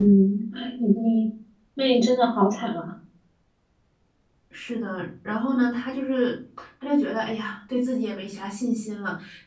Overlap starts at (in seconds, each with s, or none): none